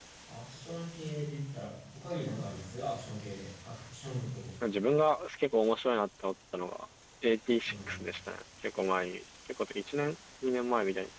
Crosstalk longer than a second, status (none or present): none